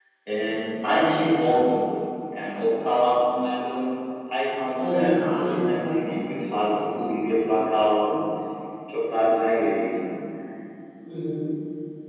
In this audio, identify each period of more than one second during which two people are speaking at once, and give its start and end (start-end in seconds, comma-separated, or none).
4.8-6.1